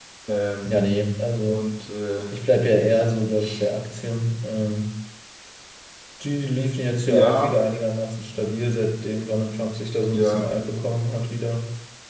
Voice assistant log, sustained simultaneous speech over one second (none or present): none